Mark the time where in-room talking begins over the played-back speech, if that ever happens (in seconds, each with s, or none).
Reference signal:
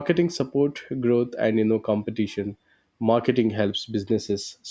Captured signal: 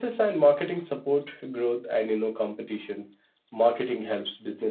none